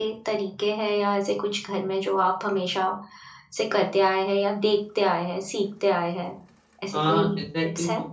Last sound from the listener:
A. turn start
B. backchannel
A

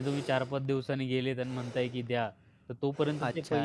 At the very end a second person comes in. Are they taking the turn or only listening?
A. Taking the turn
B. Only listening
A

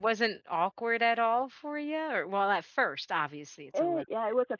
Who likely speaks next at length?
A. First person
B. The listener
B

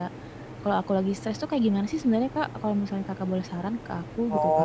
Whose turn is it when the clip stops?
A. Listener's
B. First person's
A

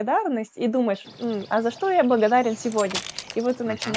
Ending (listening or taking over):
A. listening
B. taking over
A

